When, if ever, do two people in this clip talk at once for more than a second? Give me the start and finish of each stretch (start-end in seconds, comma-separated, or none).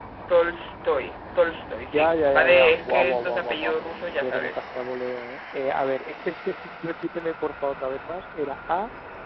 1.9-4.6